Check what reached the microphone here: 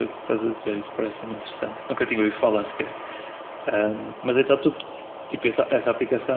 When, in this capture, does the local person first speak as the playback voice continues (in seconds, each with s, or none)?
none